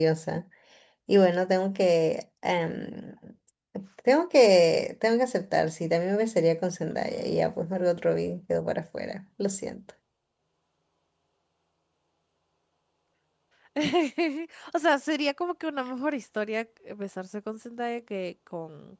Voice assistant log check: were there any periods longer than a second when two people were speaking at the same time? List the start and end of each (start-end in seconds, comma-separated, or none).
none